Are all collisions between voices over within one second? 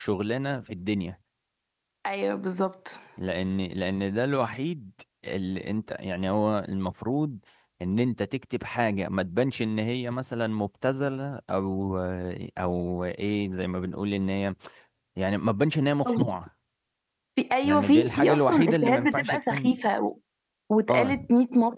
No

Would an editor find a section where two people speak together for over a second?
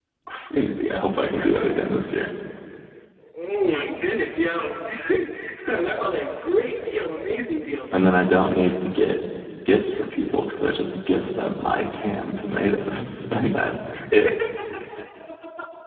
No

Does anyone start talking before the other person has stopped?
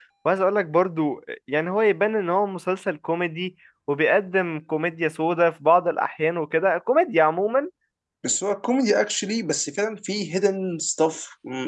No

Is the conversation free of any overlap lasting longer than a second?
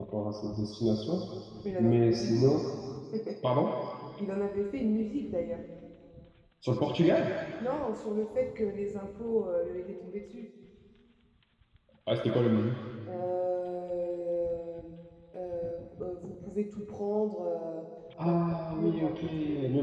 No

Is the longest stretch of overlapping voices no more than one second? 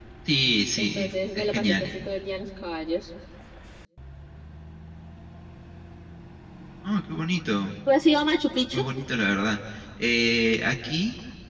No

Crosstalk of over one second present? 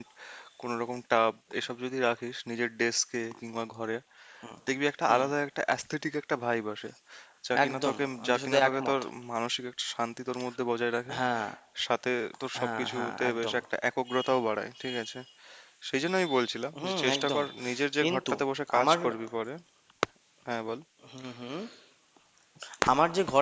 Yes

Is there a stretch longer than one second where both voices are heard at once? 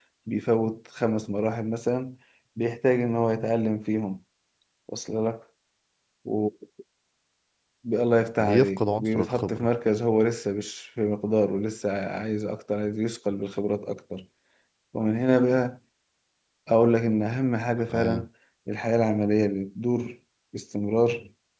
Yes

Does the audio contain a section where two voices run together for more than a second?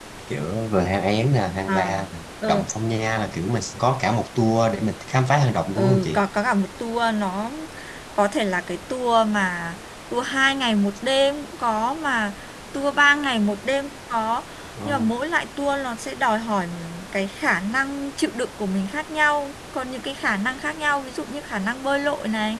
No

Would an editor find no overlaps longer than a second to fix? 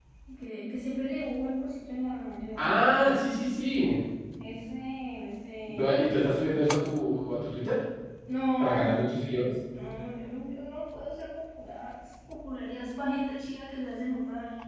Yes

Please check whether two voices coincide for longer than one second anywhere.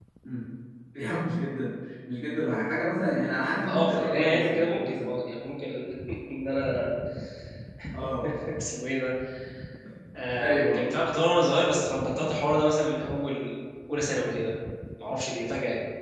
Yes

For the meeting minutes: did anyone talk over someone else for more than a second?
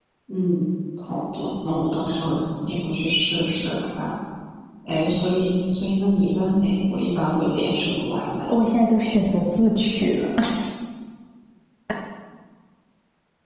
No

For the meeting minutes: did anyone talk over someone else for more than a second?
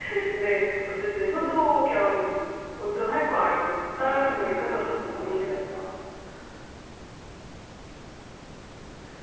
Yes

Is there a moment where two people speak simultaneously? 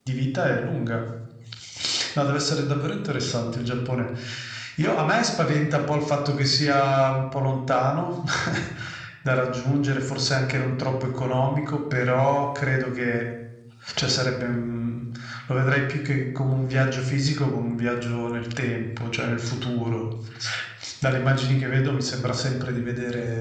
No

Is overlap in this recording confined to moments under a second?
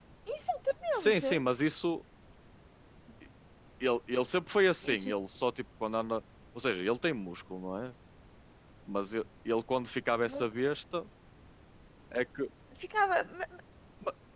Yes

